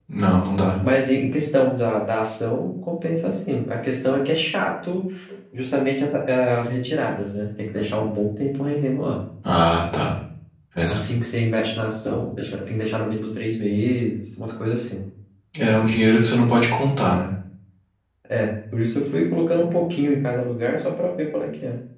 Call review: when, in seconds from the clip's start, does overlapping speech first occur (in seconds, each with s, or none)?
none